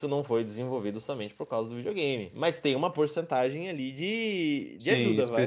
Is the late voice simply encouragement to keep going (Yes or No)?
No